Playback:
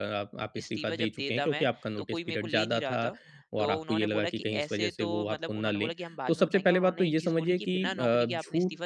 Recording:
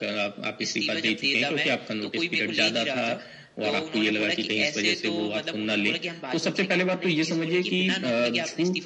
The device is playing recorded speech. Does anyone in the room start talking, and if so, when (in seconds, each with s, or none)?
none